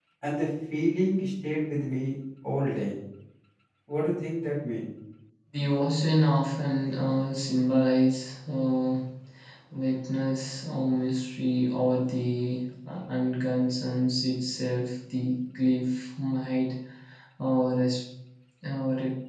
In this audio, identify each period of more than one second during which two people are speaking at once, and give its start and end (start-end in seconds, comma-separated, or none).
none